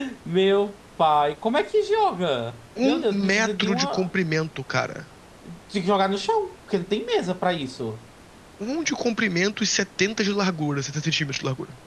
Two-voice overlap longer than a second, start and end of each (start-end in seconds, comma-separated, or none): 2.8-4.1